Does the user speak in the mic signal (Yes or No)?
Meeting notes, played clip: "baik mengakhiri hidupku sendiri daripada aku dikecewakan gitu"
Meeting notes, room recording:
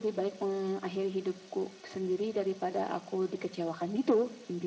No